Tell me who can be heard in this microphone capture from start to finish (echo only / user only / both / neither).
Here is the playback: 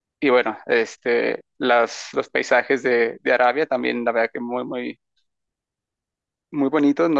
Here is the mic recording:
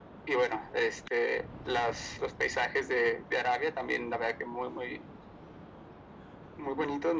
echo only